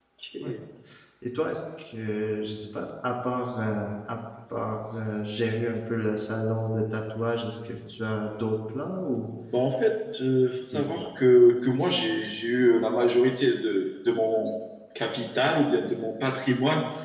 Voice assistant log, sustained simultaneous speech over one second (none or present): none